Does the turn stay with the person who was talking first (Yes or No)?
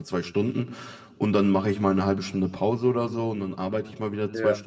Yes